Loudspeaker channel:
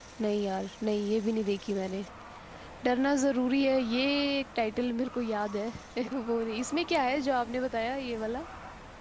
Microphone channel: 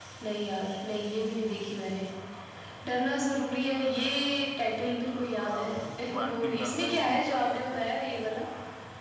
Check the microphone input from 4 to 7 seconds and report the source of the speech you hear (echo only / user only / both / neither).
both